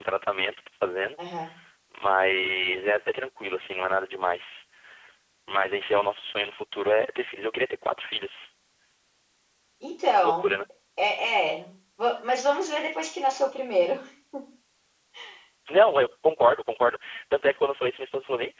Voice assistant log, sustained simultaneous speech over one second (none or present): none